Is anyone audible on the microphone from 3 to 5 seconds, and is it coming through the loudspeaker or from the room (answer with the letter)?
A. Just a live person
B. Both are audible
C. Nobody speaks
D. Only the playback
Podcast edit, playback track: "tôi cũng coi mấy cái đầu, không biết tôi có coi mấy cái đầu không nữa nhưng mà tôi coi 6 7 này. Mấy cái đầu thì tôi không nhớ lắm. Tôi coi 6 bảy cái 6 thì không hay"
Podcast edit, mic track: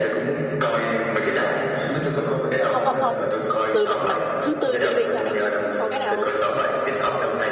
B